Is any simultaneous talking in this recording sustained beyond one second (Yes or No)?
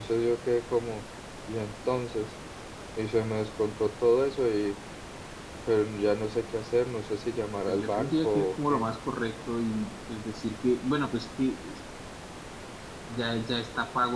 Yes